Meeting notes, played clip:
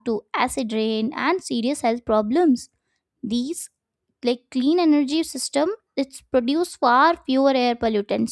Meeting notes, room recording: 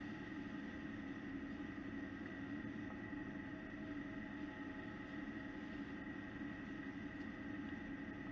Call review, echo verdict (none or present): none